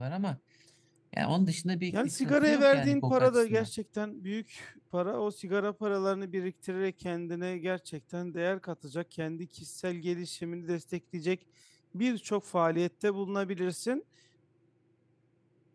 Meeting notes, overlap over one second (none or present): present